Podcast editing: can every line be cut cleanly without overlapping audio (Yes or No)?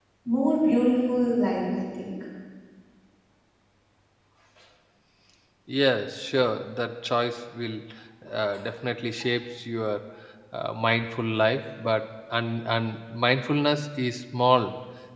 Yes